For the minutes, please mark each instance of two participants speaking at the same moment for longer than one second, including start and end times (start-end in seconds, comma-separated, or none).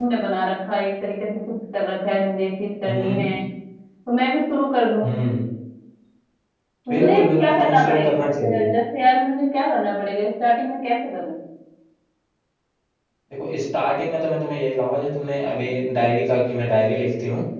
6.9-8.7